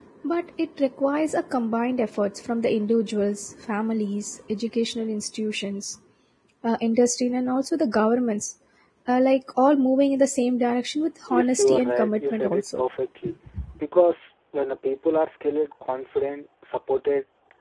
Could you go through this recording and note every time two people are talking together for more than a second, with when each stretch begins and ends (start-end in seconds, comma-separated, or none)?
11.3-12.8